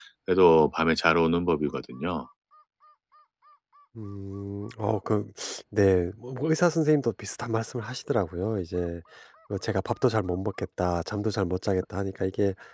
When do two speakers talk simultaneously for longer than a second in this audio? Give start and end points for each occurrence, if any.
none

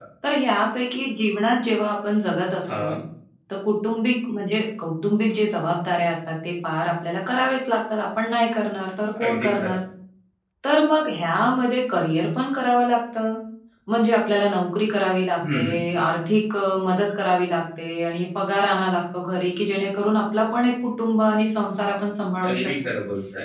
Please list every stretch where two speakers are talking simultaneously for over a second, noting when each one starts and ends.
none

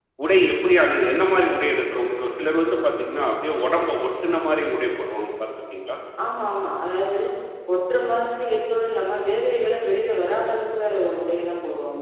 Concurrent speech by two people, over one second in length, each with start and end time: none

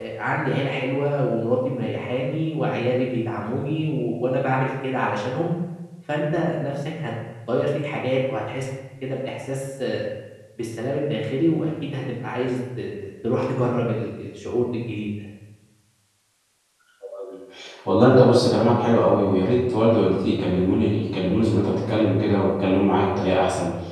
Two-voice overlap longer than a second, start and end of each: none

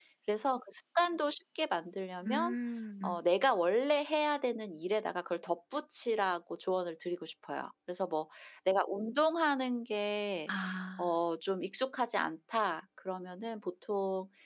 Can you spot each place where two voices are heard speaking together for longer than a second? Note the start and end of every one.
none

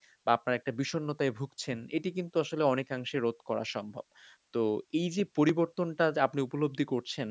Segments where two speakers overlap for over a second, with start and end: none

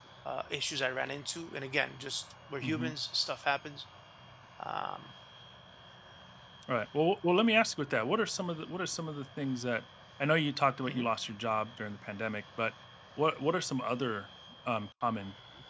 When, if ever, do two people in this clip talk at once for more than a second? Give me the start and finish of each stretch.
none

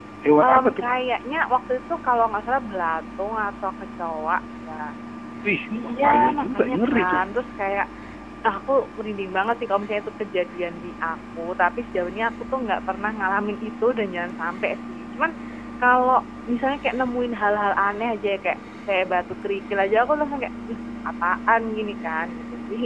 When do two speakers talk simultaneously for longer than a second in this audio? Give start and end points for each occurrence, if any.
5.8-7.2

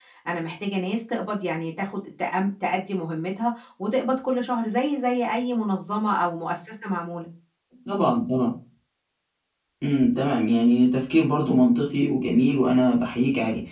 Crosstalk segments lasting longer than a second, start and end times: none

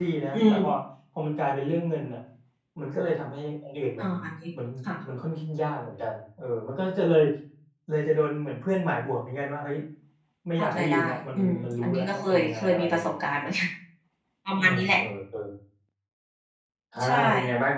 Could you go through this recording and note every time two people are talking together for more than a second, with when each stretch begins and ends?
10.6-13.3

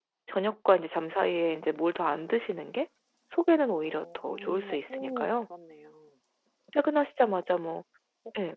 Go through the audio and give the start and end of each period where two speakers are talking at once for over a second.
3.9-5.3

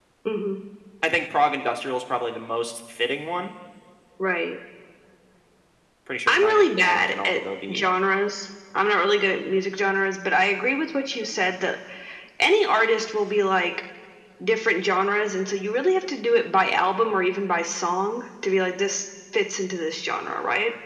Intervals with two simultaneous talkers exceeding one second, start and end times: 6.3-7.9

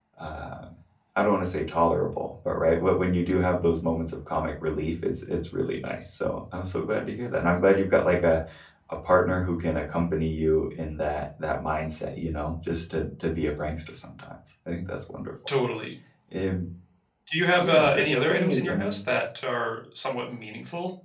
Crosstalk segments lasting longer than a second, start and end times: 17.6-19.1

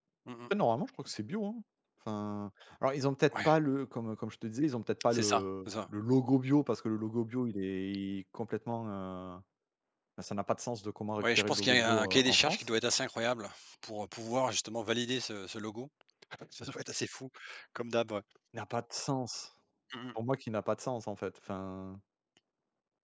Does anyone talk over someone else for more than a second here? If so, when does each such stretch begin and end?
11.2-12.7

